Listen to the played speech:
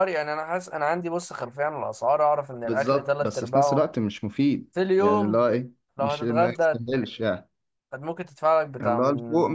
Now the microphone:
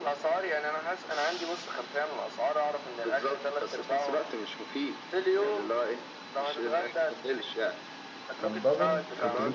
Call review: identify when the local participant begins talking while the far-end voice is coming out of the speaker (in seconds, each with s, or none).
8.4 s